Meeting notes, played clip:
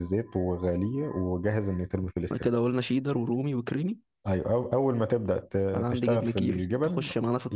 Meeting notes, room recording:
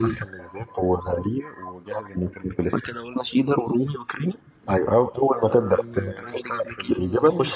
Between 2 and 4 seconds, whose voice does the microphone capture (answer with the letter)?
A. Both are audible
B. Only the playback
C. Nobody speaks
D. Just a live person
B